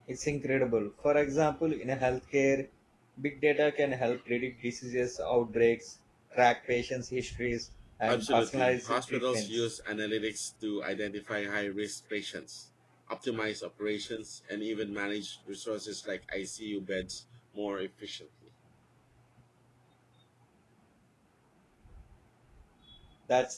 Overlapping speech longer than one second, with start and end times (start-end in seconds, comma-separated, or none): 8.1-9.6